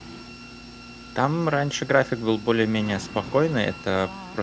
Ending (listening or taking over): listening